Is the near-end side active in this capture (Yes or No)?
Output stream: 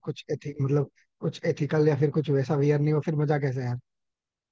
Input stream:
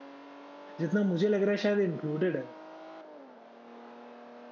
Yes